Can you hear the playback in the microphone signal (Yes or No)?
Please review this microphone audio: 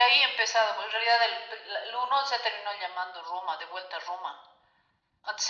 Yes